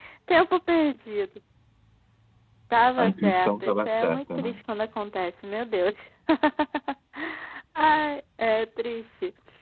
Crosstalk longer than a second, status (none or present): present